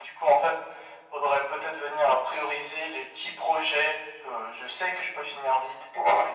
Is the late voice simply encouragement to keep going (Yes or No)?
Yes